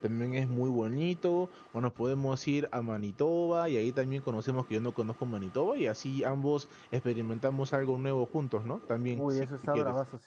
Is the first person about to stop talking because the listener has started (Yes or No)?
Yes